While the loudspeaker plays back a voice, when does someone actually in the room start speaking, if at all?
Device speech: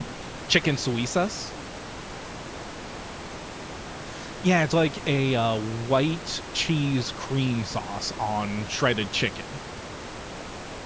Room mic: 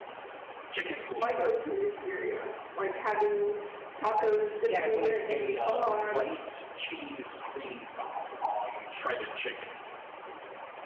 1 s

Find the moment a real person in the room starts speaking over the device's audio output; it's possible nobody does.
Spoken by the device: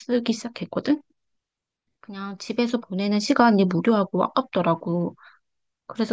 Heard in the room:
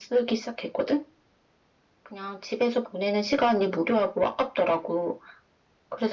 none

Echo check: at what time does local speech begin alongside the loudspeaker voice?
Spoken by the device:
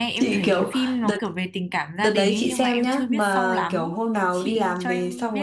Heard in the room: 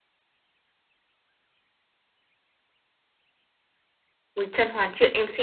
4 s

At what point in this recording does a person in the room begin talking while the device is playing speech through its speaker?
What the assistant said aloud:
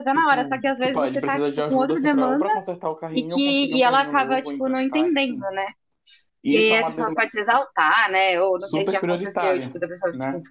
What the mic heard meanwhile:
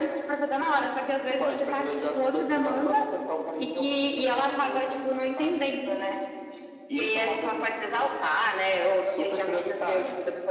none

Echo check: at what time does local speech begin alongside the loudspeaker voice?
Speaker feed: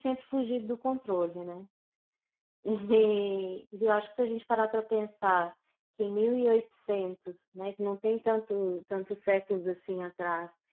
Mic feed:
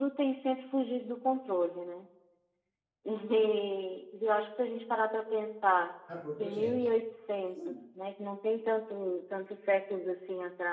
6 s

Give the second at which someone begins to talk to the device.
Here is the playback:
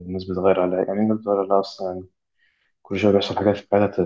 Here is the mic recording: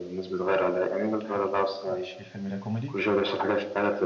1 s

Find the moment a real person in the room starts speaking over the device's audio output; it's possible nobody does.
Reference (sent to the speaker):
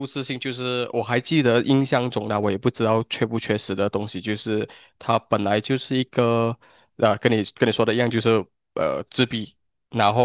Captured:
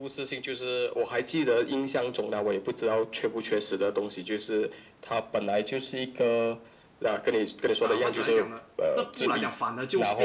8 s

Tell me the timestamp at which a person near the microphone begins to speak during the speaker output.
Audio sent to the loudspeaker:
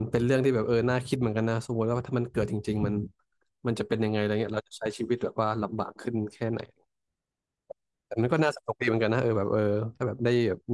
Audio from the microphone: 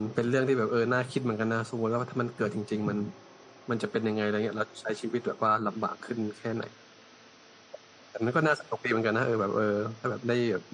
none

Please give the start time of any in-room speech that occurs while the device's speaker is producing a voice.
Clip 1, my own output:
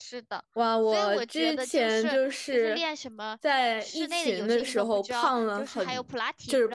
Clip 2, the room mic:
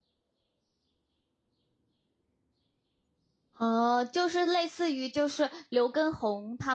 4 s

